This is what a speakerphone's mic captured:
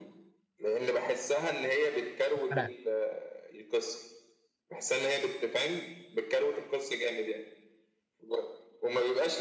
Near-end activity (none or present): present